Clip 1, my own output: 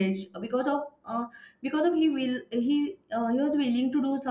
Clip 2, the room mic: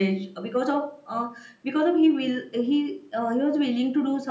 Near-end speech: none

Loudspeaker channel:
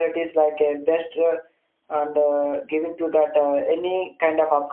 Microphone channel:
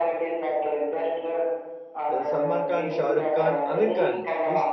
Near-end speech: present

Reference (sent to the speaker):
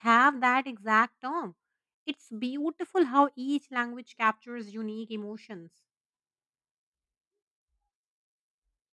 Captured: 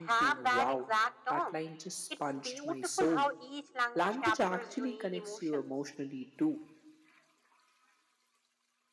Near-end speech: present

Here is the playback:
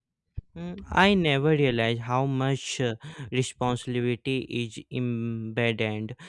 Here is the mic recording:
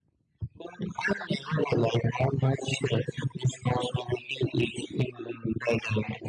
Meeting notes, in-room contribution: none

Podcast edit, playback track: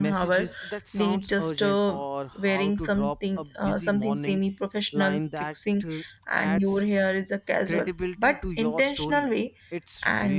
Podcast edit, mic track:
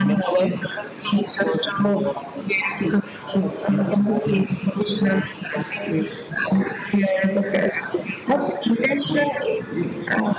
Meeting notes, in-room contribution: none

